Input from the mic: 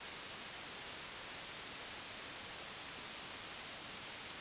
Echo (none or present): none